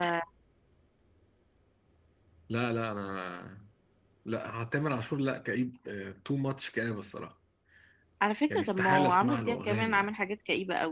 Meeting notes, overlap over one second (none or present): present